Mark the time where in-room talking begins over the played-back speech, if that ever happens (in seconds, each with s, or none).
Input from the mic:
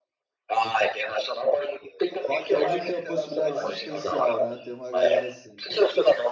2.3 s